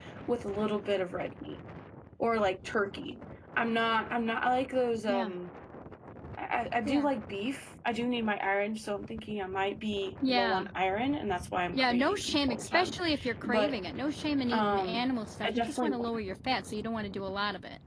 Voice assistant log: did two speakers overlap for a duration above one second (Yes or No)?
Yes